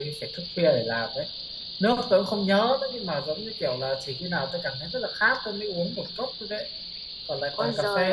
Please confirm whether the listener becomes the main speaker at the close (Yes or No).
Yes